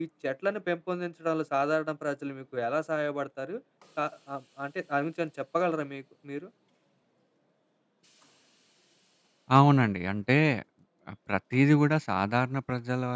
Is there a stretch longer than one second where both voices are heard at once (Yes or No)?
No